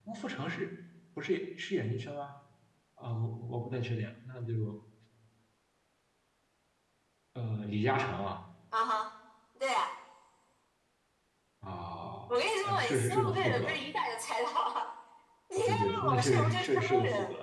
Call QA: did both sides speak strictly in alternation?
No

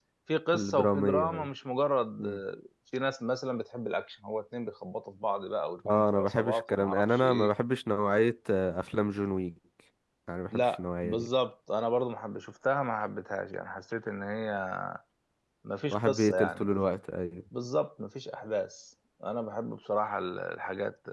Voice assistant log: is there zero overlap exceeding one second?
No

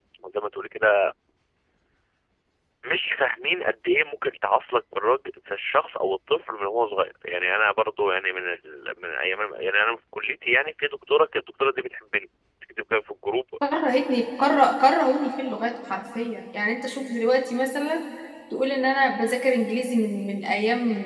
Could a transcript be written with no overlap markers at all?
Yes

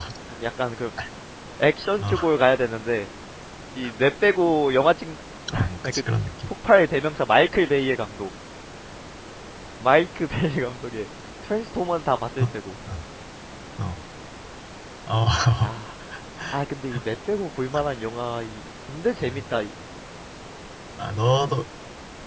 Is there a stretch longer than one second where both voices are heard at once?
No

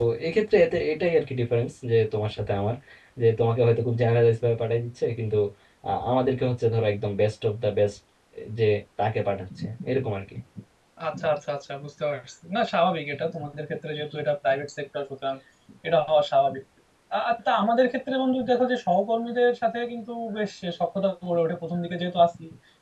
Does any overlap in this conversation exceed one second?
No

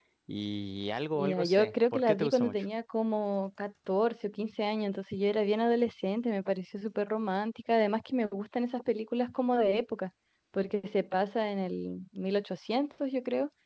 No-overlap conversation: No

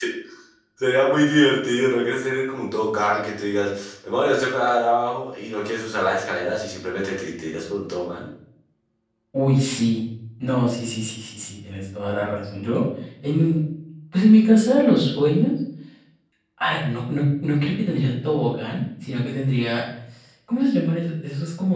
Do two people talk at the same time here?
No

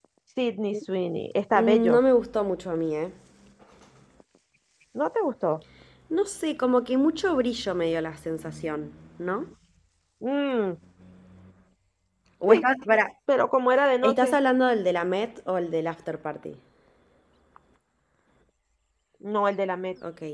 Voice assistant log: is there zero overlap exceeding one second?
Yes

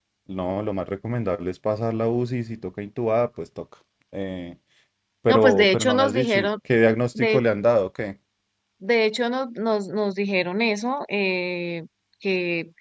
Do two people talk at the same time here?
Yes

